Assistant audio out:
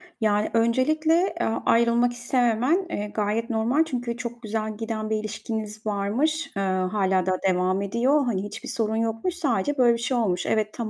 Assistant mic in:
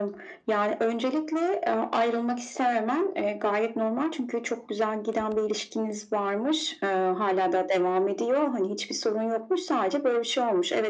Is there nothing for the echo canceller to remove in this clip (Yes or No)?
No